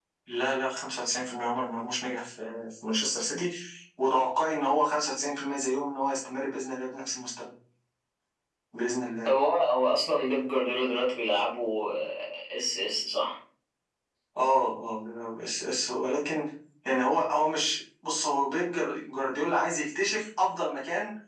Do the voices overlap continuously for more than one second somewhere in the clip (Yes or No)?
No